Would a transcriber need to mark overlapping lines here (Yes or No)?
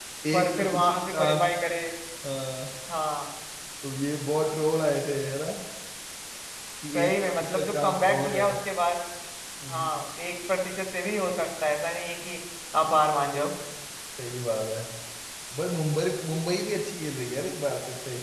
Yes